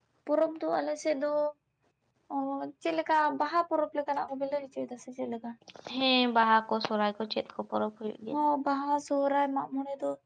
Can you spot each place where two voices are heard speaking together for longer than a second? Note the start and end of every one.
none

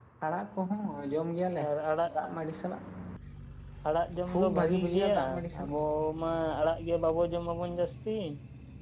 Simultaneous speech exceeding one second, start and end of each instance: 4.3-5.7

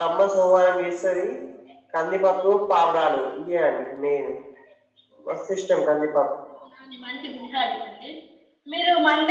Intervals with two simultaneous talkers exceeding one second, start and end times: none

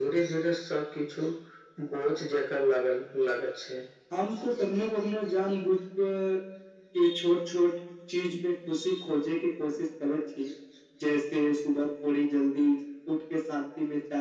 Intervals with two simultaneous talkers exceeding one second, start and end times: none

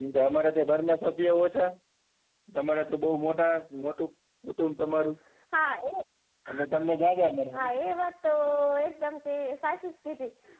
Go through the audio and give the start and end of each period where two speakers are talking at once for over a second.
none

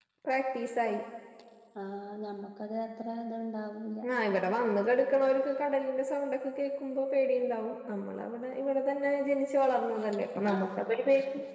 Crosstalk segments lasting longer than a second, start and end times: none

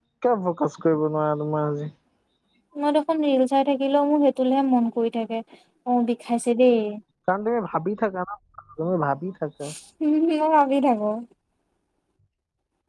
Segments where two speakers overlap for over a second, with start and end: none

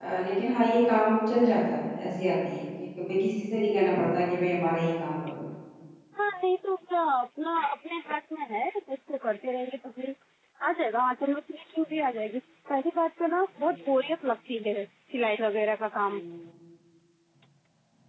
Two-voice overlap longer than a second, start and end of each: none

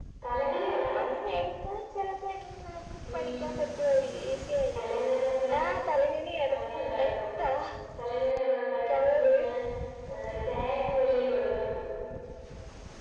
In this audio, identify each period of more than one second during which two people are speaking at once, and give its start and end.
none

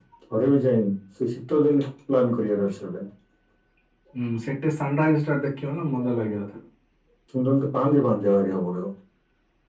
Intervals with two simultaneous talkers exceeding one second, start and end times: none

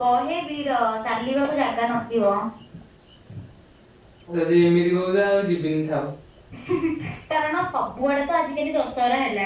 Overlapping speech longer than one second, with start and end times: none

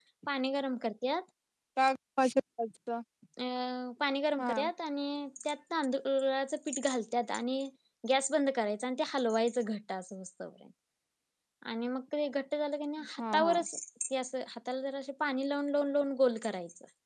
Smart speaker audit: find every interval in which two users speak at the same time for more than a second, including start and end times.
none

